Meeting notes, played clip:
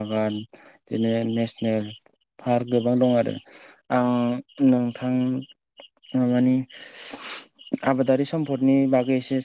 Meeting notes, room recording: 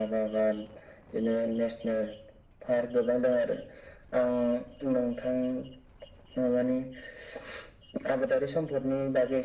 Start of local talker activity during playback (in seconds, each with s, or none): none